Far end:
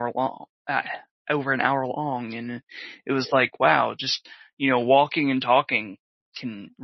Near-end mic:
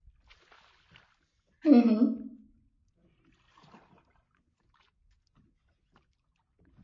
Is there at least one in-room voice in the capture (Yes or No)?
Yes